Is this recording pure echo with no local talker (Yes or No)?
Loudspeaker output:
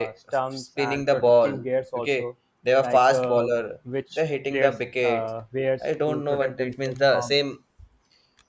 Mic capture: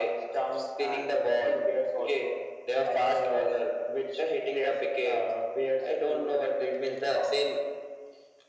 Yes